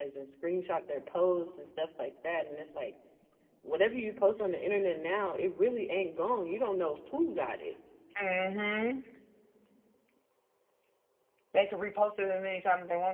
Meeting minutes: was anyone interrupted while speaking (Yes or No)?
No